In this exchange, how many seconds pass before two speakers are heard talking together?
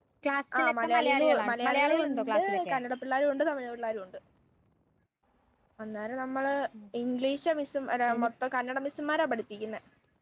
1 s

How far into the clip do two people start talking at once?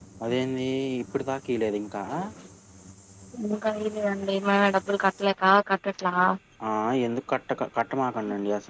none

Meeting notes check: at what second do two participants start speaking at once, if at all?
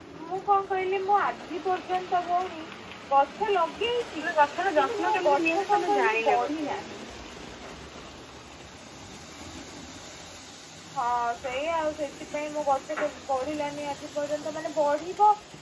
5 s

